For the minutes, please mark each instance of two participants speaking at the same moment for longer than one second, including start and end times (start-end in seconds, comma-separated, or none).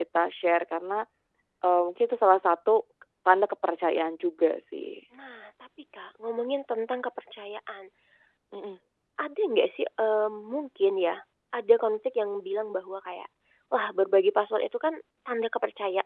none